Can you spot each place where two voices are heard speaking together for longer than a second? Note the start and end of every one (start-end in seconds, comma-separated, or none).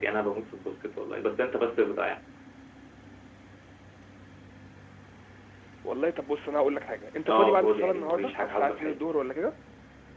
7.3-9.0